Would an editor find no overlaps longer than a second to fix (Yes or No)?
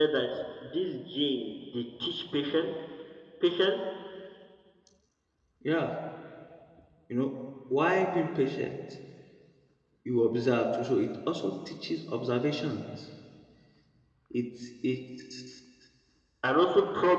Yes